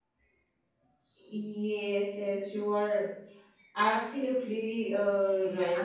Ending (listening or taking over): taking over